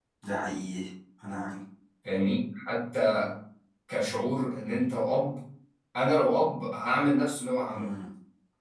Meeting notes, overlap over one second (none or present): none